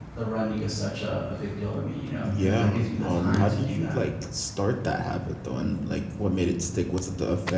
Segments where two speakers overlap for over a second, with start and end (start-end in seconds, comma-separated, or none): 2.2-4.0